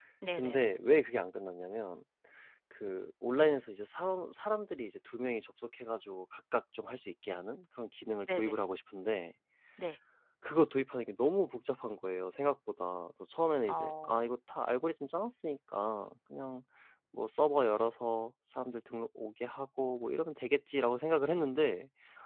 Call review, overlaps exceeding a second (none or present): none